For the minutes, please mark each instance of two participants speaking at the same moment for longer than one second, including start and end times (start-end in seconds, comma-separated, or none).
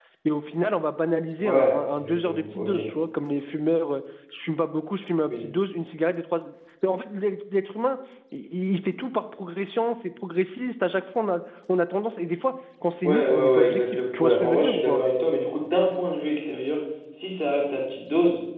1.4-2.7, 13.0-15.0